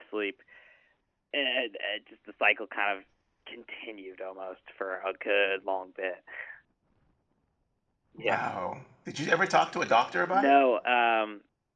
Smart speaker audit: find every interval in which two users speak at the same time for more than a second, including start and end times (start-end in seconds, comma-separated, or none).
none